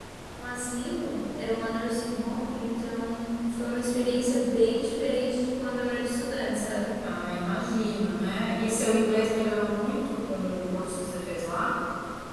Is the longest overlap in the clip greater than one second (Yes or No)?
No